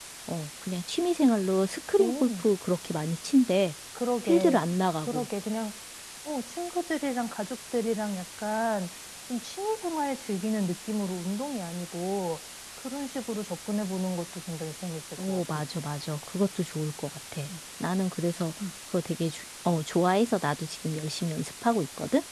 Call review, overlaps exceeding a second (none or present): none